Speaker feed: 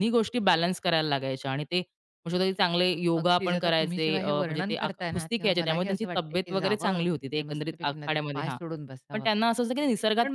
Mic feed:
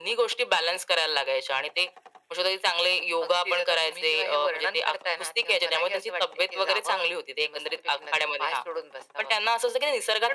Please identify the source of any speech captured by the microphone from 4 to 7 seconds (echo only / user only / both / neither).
echo only